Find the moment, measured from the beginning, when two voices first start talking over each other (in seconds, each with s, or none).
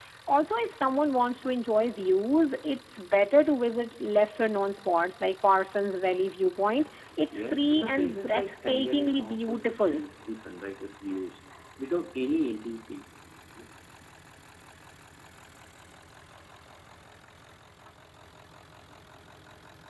7.3 s